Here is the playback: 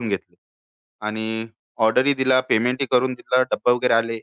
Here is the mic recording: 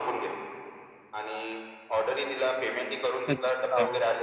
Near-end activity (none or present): present